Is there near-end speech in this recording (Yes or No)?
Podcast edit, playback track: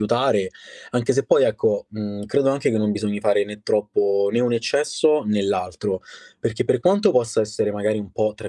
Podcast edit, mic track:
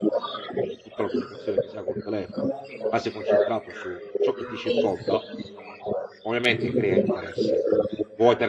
Yes